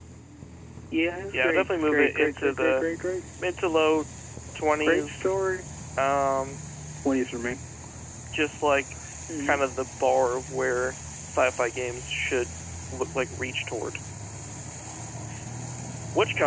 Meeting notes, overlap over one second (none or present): present